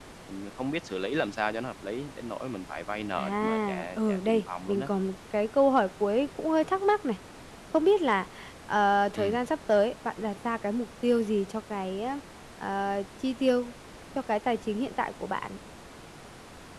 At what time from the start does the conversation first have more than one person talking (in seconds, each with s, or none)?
3.2 s